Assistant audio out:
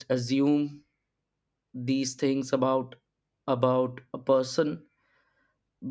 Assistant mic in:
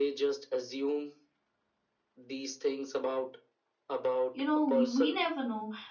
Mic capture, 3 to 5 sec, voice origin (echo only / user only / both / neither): both